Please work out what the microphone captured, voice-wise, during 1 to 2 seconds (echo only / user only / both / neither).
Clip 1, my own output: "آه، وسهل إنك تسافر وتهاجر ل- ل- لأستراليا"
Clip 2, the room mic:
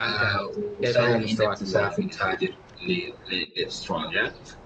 both